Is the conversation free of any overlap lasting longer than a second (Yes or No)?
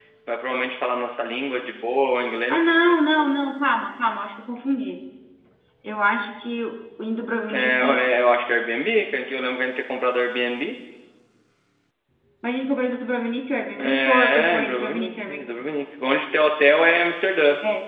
No